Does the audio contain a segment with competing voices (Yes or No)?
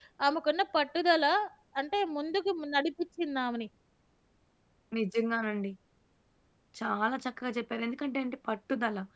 No